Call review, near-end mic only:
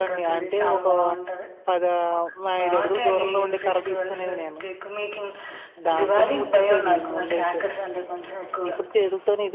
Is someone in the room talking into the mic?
Yes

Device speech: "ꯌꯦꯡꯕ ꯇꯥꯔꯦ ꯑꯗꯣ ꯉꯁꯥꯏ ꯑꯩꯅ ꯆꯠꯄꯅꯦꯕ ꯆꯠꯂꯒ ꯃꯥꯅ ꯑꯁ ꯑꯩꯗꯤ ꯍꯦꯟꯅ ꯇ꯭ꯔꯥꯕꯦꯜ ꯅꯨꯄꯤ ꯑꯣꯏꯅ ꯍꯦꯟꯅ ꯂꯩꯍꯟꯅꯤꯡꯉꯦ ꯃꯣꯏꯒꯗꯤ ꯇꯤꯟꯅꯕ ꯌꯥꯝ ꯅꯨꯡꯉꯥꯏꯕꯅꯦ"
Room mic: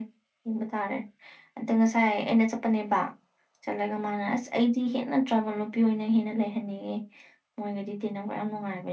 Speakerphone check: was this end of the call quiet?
Yes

